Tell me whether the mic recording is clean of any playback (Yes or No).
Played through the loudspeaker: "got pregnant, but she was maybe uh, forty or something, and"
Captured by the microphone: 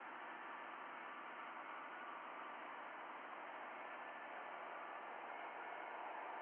Yes